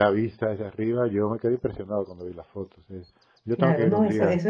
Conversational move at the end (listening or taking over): taking over